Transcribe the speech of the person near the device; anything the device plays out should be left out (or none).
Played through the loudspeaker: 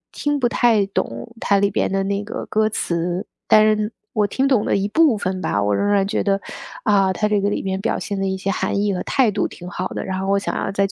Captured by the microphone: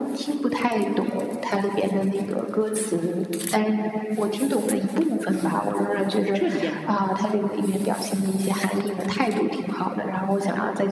就是彻底变化了？